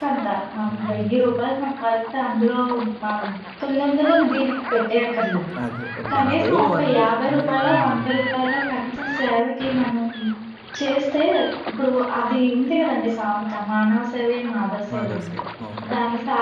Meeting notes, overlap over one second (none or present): present